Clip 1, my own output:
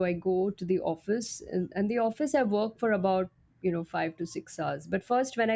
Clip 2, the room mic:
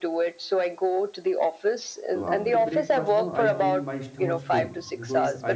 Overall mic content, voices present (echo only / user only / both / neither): both